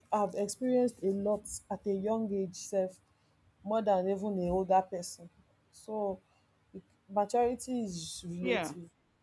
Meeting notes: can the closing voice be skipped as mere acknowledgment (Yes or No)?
Yes